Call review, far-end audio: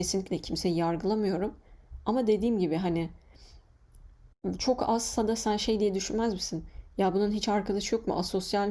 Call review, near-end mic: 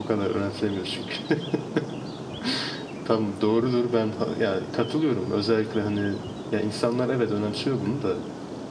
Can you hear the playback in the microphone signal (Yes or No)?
No